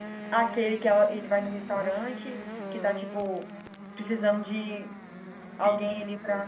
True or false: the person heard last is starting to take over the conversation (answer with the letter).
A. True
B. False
A